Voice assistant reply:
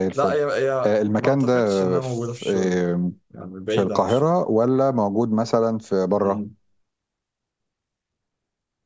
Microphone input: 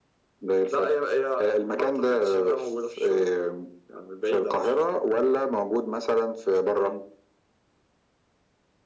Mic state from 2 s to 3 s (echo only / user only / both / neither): echo only